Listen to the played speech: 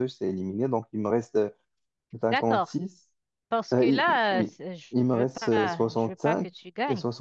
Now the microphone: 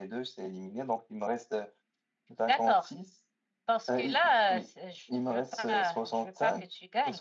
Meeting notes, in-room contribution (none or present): none